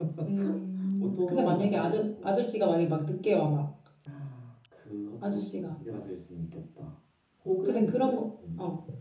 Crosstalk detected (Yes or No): Yes